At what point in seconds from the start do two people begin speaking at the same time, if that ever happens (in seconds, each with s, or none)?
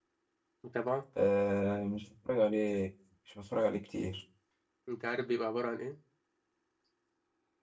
none